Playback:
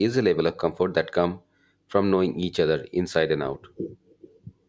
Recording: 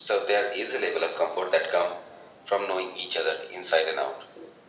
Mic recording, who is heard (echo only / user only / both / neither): echo only